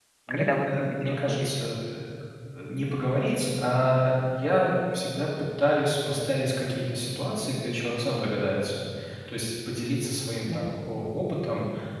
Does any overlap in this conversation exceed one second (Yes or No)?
Yes